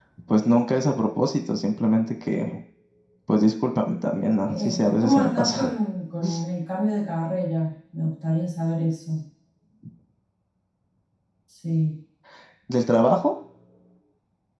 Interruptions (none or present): present